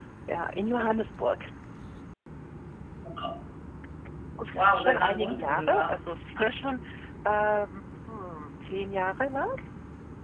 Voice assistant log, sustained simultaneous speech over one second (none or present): present